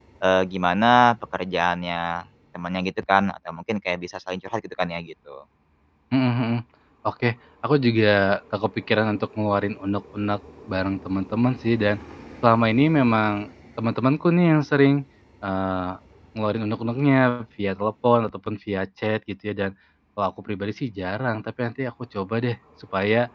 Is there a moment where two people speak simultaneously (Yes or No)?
No